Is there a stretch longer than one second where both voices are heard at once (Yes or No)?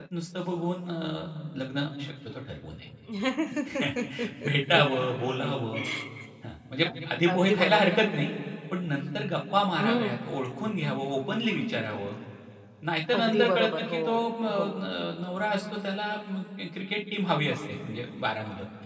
Yes